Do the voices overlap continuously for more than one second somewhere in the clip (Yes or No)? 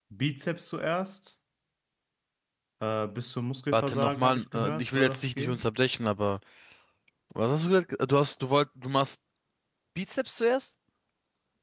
Yes